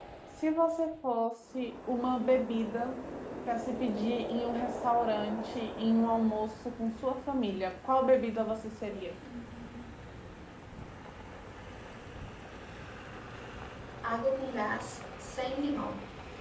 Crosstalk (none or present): none